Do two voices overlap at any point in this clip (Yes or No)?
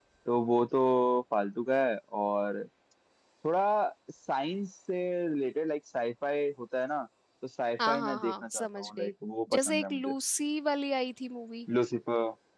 Yes